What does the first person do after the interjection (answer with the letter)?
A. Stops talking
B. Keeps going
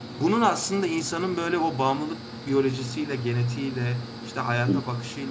B